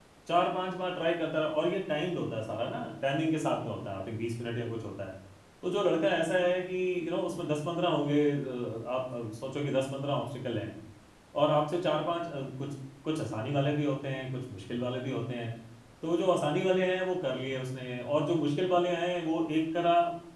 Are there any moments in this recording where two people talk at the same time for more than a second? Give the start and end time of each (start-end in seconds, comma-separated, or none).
none